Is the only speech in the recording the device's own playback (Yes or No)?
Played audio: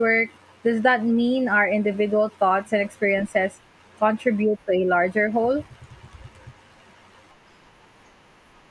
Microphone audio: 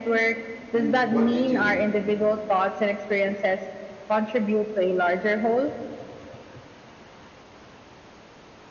No